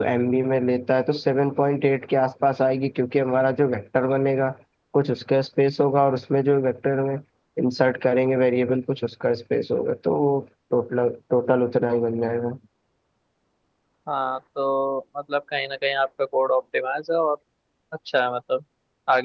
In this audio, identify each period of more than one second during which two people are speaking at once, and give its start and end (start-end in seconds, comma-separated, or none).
none